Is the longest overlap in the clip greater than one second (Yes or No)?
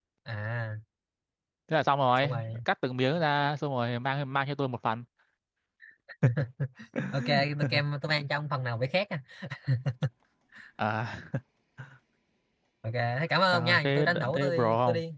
Yes